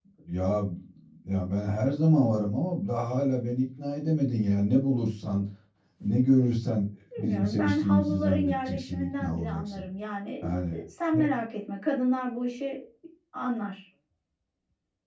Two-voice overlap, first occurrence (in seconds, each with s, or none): 7.2 s